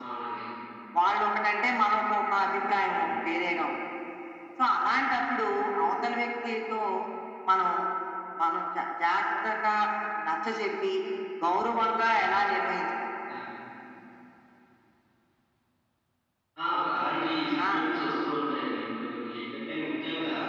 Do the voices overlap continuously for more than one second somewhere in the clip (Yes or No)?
No